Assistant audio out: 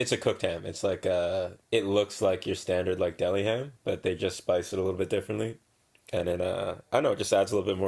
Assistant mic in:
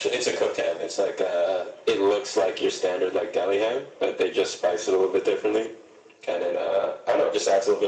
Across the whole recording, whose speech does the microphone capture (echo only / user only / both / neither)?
echo only